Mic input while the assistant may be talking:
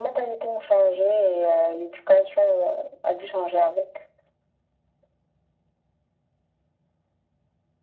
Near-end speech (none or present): none